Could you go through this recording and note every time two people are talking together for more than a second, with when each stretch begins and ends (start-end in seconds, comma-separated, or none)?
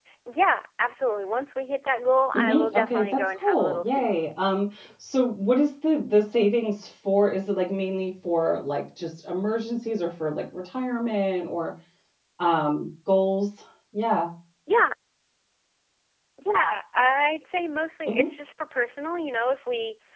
2.3-4.1